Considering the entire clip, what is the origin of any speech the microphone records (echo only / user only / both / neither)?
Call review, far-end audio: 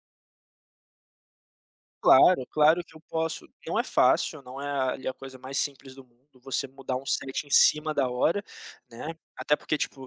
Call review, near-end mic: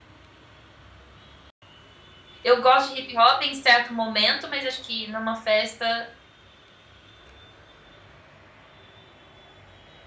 user only